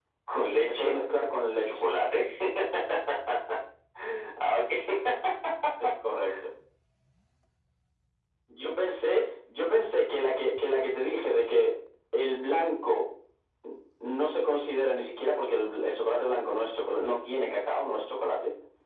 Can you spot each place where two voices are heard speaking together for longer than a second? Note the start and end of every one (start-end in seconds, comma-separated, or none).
none